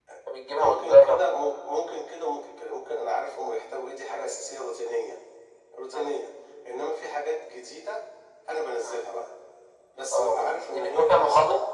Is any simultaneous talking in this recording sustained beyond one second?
Yes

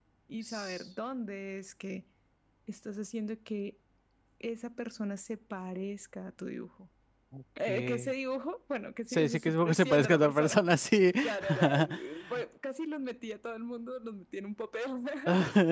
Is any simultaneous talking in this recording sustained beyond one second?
Yes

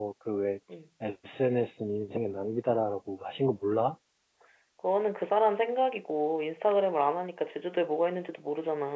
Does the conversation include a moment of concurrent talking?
No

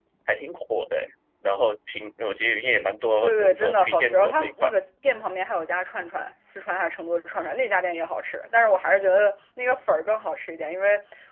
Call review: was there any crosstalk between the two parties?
Yes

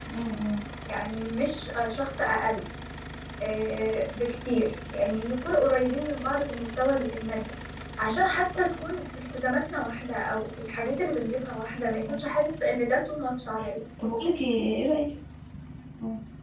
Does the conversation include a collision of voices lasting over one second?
No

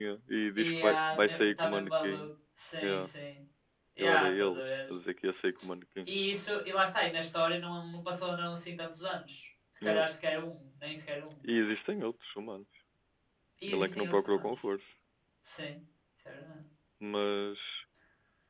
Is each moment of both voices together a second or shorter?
No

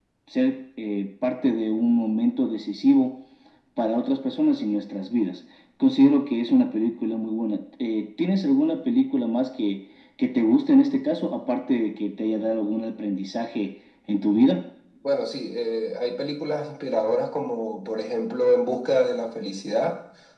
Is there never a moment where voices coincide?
Yes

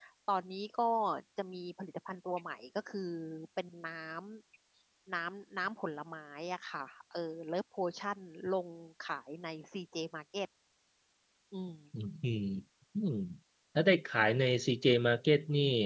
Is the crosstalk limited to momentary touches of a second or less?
Yes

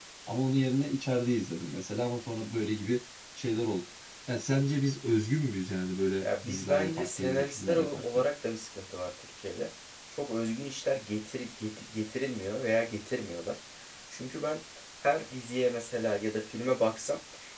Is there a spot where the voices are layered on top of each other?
Yes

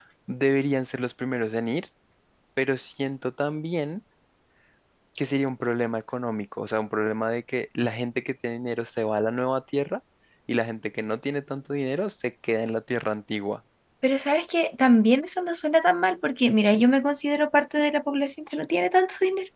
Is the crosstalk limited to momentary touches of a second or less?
Yes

